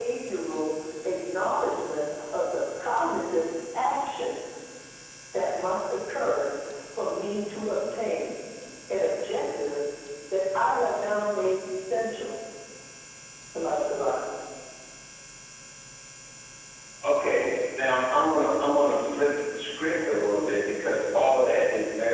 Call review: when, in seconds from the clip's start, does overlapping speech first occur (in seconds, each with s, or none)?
none